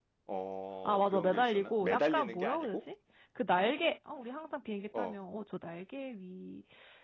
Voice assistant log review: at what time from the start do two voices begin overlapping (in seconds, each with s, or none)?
0.8 s